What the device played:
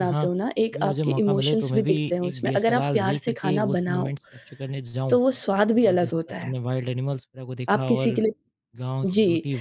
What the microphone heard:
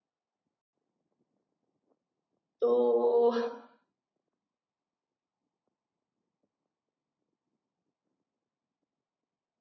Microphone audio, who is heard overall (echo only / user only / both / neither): user only